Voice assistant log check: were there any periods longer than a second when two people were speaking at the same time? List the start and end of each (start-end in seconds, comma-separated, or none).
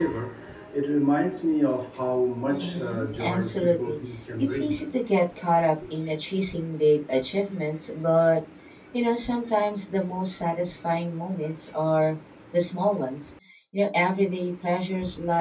2.5-4.0